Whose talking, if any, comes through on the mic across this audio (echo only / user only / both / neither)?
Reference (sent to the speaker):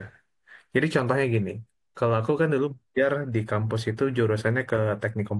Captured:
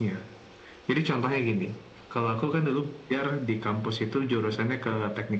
echo only